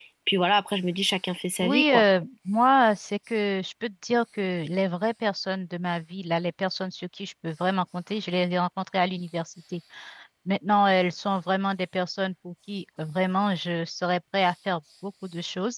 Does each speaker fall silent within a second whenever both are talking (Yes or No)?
Yes